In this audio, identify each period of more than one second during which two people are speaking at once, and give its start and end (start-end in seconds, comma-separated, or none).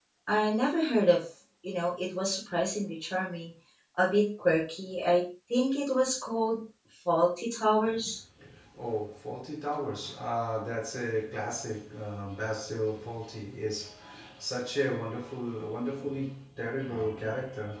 none